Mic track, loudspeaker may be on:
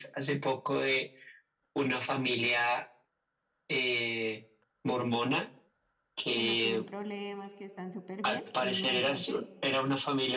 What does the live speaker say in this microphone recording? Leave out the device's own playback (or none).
que no tienen problemas, que están súper bien y no es así.